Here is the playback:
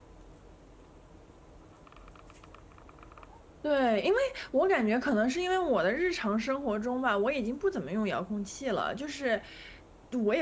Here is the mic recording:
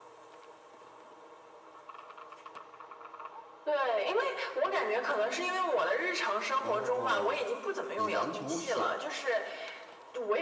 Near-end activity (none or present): present